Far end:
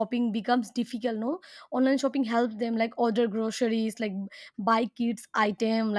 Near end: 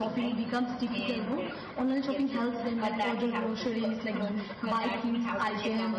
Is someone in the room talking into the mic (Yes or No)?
Yes